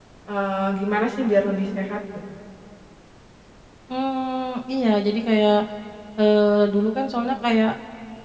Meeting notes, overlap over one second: none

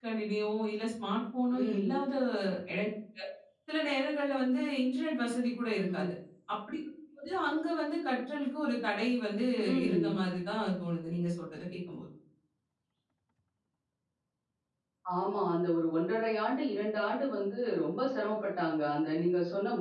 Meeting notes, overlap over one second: none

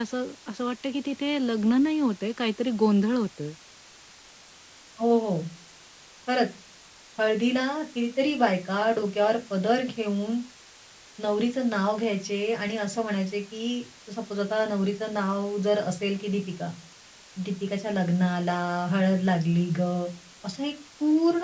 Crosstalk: none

